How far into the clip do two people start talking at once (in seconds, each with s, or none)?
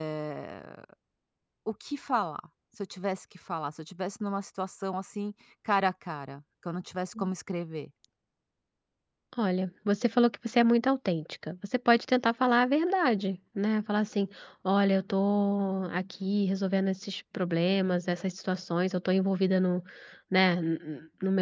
none